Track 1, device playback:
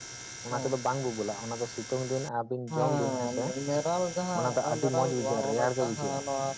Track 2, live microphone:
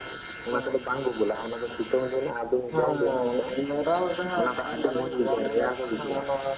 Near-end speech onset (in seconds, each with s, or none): none